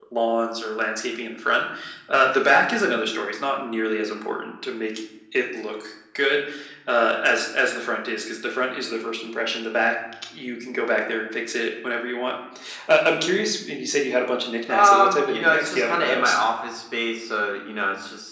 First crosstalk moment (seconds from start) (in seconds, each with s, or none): 14.7 s